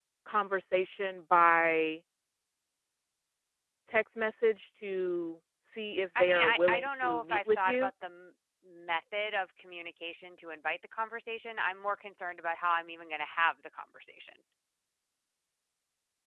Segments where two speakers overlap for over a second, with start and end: 6.2-7.9

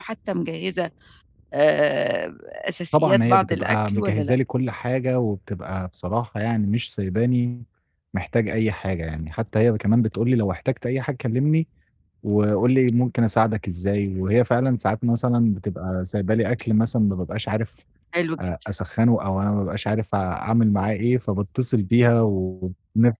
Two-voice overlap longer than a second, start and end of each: 2.9-4.3

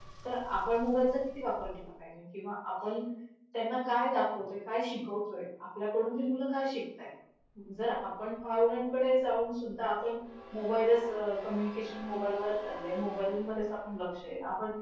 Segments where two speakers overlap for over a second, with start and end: none

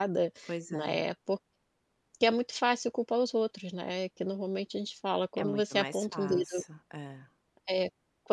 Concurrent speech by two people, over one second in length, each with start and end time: 5.4-6.6

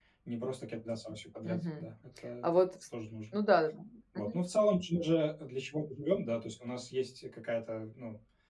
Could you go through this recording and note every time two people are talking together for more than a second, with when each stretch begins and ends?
none

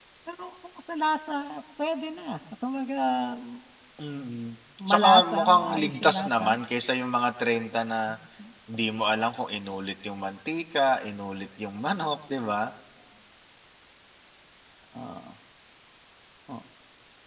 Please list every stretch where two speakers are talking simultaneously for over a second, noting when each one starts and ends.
4.9-6.5

